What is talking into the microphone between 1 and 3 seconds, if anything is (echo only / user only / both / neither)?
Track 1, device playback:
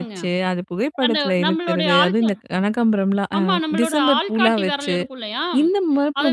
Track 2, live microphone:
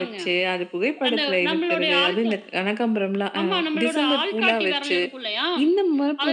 echo only